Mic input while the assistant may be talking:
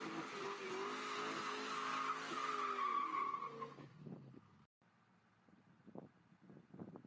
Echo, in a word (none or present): none